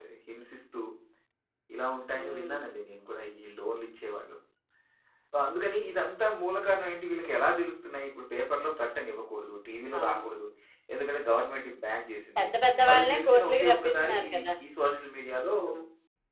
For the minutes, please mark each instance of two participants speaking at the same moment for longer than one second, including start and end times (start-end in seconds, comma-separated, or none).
12.9-14.4